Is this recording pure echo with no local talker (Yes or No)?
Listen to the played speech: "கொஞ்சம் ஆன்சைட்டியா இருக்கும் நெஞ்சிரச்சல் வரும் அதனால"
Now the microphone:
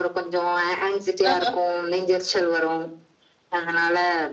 No